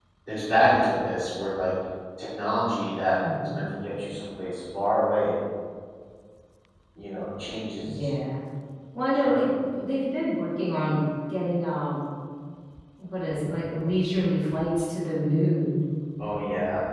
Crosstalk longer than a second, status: none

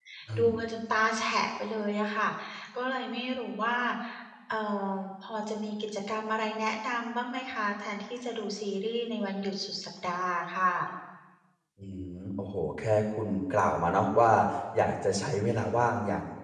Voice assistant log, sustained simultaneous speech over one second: none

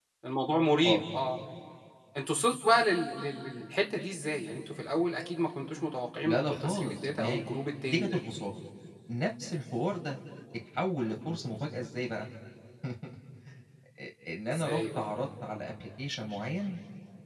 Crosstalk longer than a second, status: present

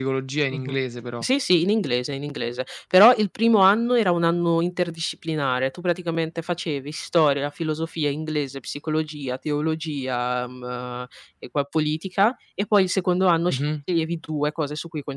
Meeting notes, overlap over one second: none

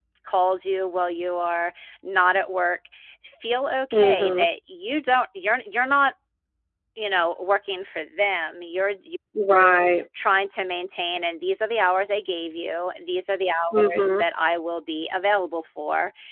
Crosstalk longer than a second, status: none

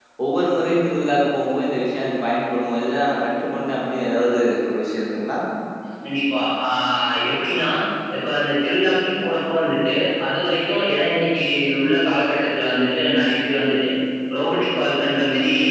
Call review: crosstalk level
none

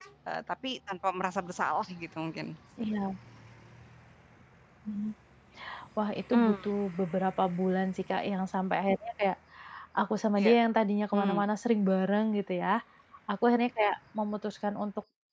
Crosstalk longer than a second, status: none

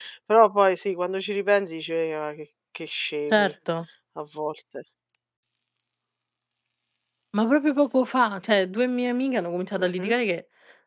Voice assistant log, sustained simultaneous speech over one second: none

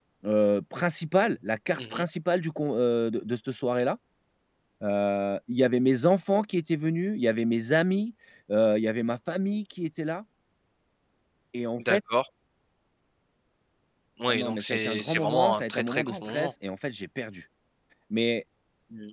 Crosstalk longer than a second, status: present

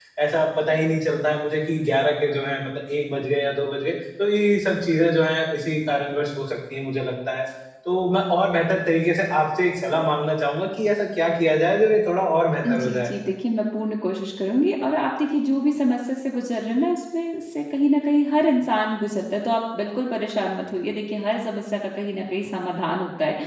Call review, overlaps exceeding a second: none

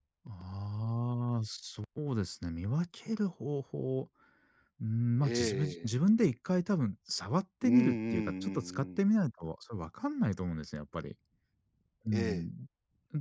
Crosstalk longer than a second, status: present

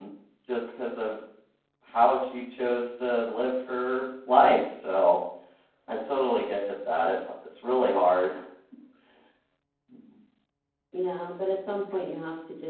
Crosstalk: none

